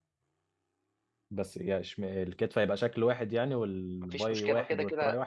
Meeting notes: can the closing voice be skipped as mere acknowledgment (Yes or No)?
No